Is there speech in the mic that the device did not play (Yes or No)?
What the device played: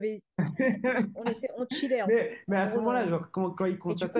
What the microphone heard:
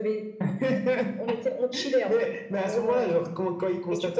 No